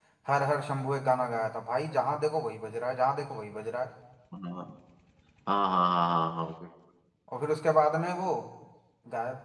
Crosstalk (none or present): none